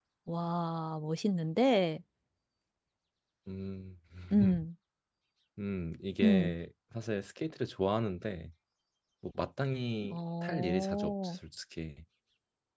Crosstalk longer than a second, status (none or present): present